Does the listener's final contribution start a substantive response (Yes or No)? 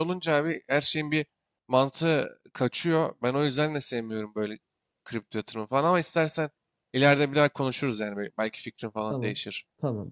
Yes